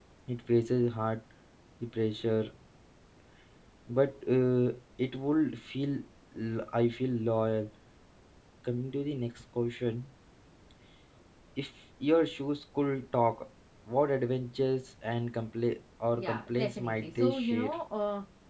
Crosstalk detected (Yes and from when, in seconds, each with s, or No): Yes, from 16.2 s